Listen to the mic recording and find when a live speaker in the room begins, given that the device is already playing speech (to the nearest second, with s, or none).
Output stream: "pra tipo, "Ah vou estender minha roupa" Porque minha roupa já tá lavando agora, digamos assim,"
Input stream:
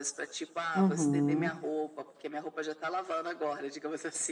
1 s